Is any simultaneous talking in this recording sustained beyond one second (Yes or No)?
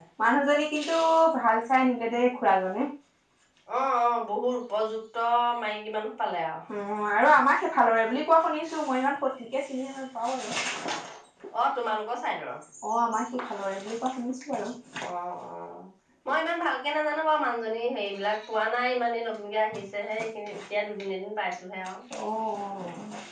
No